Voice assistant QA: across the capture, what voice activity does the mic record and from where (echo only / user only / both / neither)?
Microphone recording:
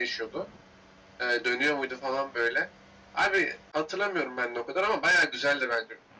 echo only